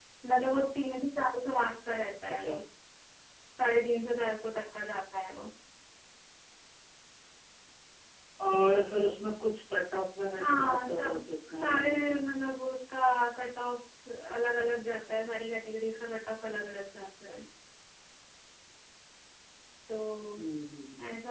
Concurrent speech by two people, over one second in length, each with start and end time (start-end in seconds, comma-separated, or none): 10.4-12.3